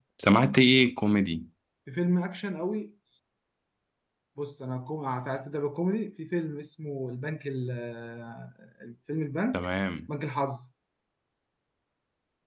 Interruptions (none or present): none